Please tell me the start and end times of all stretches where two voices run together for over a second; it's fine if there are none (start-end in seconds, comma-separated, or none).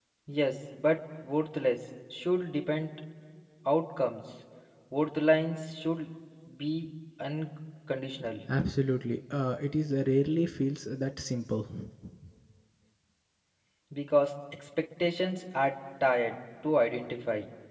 none